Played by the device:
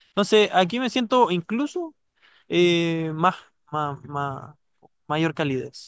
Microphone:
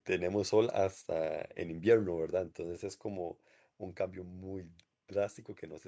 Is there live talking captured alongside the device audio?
Yes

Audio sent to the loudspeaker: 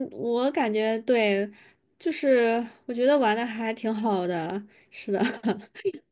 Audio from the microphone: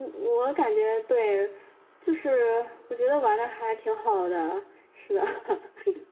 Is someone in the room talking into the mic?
No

